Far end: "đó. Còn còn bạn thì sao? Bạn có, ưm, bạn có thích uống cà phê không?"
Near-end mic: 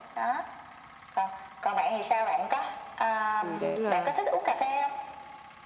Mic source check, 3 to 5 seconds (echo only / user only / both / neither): both